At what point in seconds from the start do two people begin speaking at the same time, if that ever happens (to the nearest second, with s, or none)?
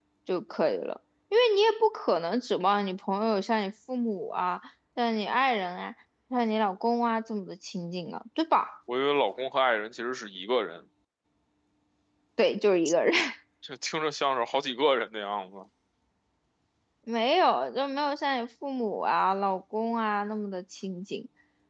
none